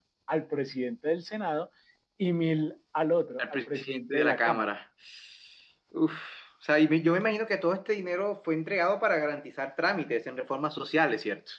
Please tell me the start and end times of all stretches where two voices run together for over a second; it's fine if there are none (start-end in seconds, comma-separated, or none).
3.4-4.6